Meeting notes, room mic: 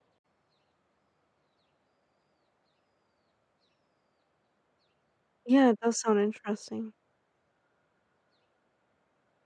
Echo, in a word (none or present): none